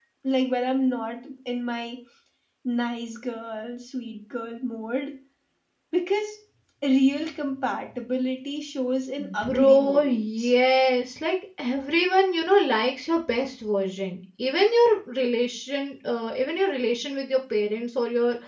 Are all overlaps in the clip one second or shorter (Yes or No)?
No